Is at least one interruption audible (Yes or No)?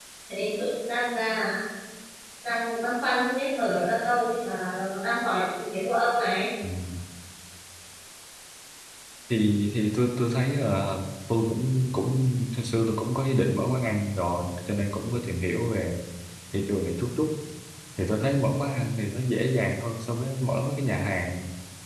No